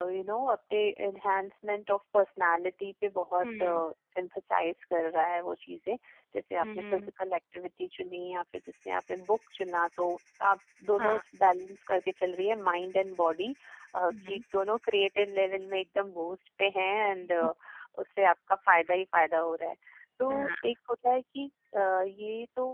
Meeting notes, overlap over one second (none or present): none